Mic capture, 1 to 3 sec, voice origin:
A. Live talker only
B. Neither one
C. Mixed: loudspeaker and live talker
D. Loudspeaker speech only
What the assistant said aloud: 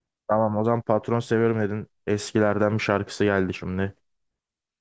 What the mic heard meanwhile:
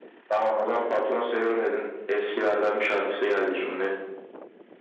D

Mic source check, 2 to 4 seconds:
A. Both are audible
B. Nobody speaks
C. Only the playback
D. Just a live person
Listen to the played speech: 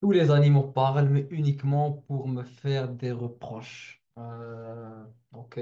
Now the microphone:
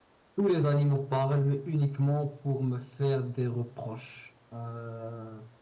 C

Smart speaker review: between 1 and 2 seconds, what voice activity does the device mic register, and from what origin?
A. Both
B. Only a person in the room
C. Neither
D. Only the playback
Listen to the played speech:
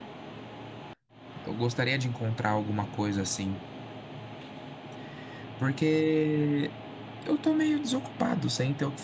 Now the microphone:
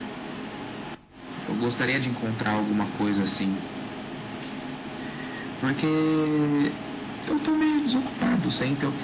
D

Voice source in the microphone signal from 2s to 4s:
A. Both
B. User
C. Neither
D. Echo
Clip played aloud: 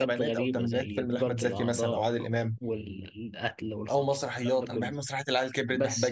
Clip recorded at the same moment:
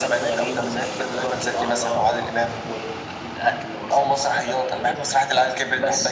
D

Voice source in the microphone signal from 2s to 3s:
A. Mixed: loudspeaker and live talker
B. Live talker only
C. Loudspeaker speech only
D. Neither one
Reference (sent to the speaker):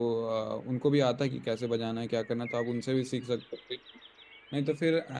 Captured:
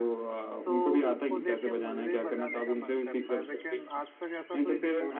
A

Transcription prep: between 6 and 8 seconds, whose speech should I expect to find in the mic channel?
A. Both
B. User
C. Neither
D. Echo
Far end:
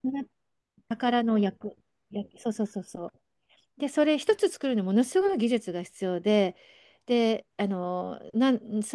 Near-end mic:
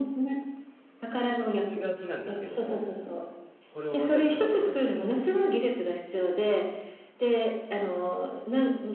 D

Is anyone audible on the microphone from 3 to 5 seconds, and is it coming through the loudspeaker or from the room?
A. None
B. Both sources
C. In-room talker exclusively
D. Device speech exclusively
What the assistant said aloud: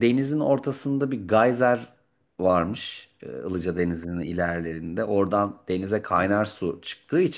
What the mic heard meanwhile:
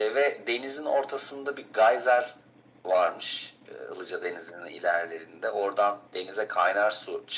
D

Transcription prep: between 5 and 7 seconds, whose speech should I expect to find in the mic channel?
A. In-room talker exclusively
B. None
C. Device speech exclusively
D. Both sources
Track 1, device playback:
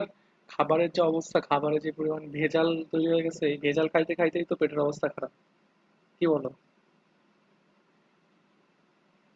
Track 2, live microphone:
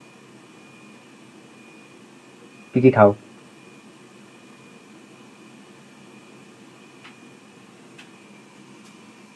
B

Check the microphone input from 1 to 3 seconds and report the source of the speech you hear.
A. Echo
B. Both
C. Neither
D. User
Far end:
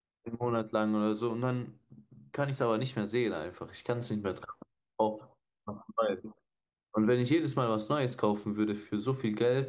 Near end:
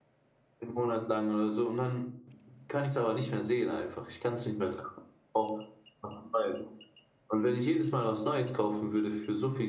A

